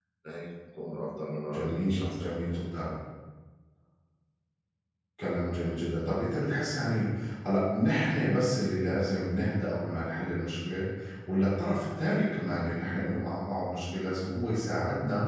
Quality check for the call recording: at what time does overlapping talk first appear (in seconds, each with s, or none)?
1.5 s